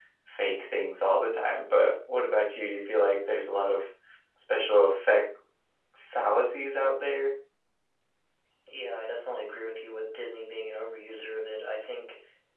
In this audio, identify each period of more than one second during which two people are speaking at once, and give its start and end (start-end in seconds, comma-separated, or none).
none